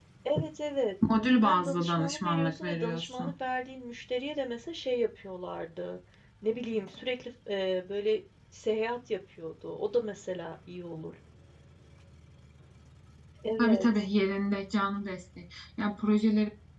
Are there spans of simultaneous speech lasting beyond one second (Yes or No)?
Yes